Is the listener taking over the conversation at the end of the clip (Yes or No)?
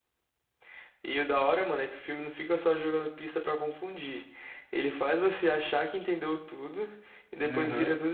No